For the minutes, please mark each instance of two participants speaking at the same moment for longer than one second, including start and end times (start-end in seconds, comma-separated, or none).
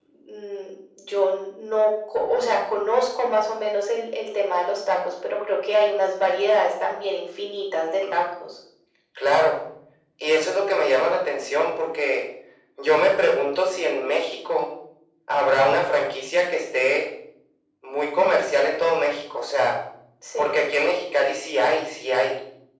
none